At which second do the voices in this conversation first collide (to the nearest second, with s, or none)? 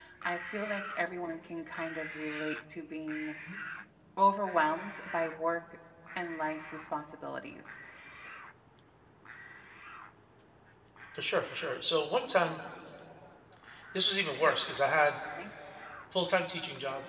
none